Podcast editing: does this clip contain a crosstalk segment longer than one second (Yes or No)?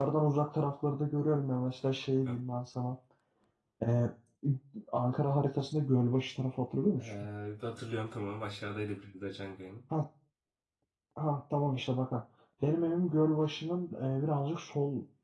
No